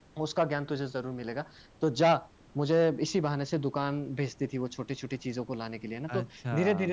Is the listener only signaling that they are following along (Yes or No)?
Yes